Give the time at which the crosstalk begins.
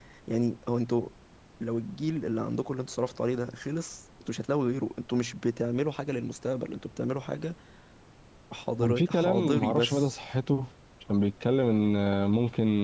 8.8 s

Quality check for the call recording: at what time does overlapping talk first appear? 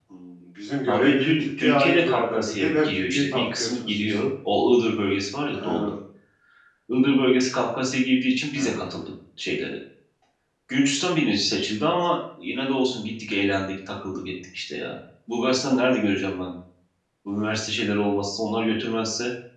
0.8 s

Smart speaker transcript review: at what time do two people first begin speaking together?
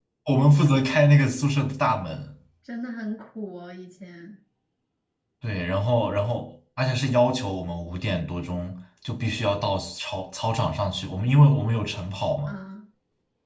none

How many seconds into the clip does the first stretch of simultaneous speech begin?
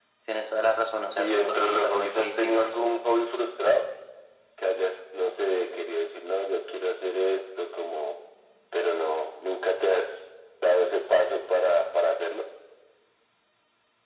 1.1 s

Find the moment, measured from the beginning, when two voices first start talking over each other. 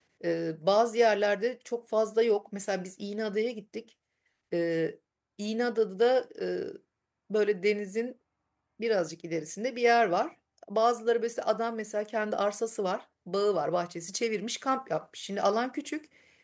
none

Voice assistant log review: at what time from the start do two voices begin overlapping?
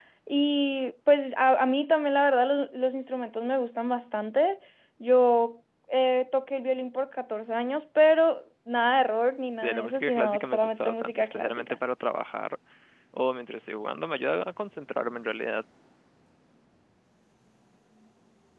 9.6 s

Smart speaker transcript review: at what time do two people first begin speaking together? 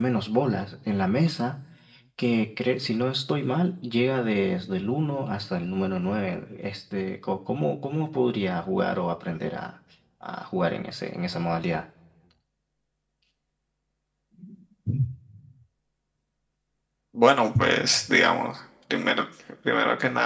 none

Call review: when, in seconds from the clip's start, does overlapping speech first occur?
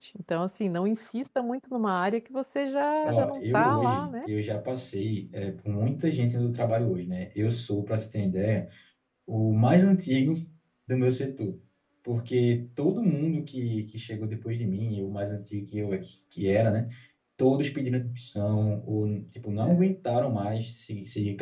3.0 s

